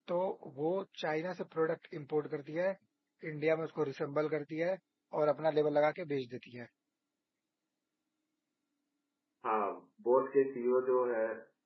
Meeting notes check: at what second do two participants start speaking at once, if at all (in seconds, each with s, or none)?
none